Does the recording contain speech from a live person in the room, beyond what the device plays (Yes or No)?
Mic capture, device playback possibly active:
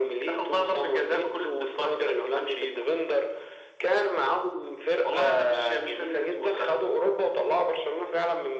No